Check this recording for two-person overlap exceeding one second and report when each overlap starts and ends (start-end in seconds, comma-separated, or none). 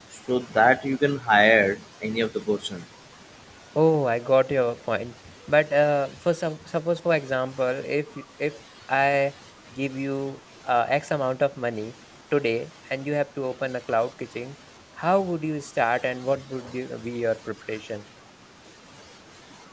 none